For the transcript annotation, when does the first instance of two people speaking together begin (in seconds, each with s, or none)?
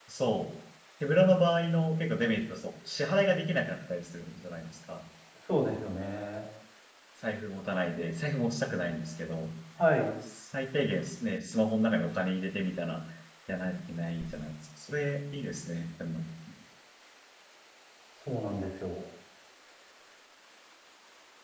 none